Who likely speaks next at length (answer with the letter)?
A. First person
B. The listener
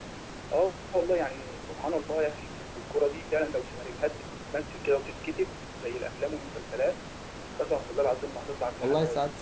B